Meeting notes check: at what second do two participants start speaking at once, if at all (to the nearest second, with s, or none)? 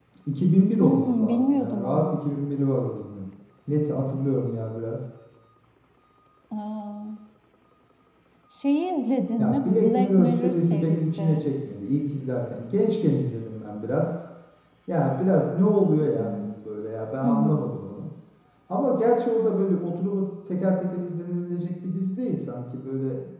1 s